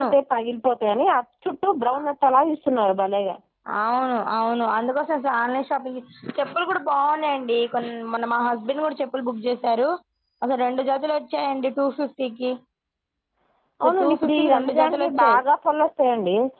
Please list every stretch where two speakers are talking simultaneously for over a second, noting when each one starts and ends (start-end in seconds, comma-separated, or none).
13.8-15.4